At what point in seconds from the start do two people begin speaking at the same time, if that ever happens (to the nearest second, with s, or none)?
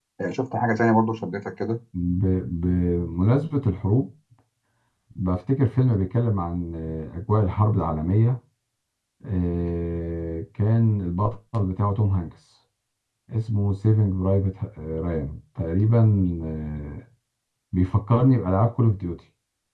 none